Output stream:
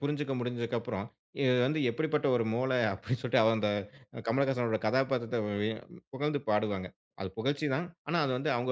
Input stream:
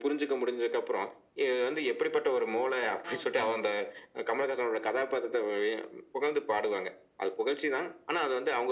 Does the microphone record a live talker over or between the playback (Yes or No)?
Yes